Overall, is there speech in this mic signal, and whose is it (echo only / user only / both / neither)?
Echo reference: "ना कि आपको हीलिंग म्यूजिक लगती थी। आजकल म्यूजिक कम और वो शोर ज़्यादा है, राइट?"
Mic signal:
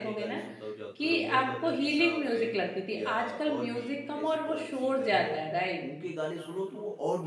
both